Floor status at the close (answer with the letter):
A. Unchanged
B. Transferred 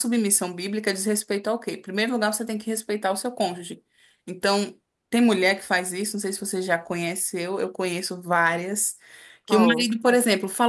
A